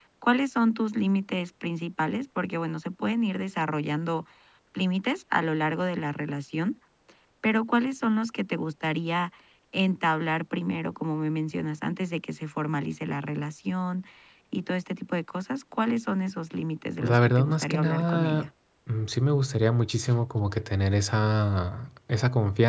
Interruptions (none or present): present